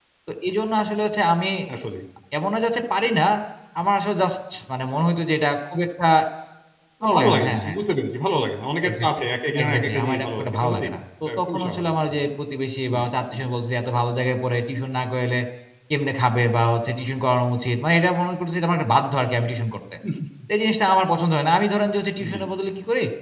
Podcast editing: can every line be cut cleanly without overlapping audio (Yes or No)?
No